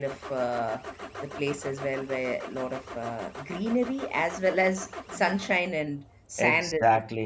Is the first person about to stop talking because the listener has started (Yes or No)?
Yes